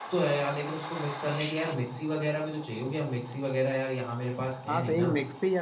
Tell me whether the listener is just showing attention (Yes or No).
No